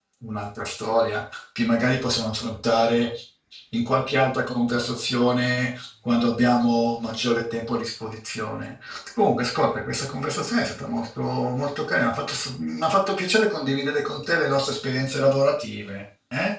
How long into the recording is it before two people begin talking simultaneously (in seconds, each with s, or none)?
none